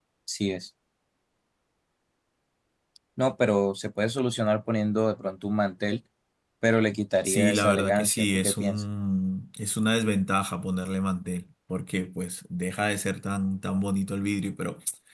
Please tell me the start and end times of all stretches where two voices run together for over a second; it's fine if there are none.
7.2-8.8

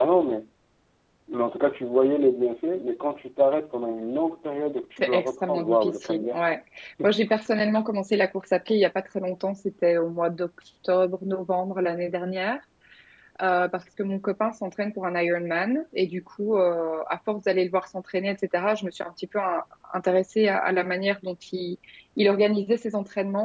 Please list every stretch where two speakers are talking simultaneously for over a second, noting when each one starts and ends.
5.0-6.4

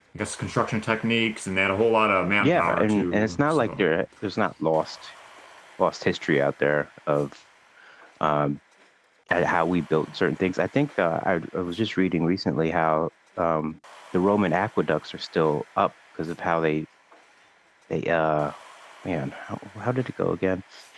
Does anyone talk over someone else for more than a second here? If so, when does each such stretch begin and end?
2.4-3.9

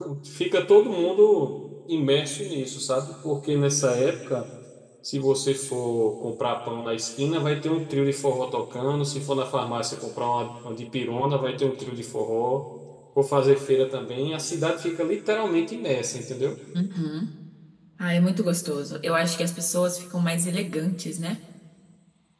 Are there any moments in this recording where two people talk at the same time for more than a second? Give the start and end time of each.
none

